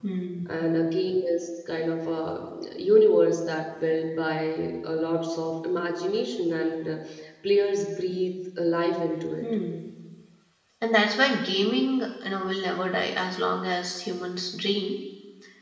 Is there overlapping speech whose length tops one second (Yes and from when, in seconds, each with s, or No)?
No